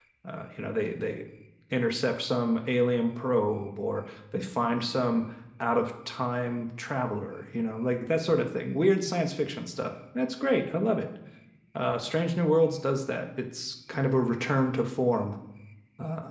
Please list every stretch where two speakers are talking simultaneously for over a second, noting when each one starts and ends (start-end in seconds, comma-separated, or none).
none